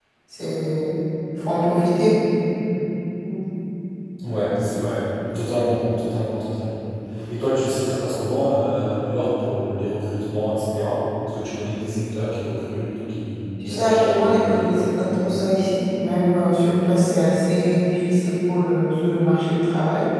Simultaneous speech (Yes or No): Yes